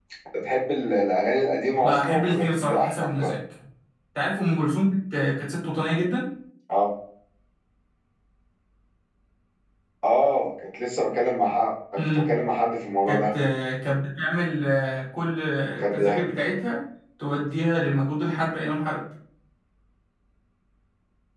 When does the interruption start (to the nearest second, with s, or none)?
2 s